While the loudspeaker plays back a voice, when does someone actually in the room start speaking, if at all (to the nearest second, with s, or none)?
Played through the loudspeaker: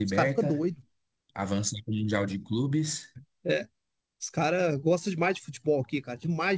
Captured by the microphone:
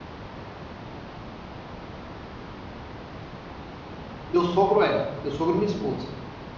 4 s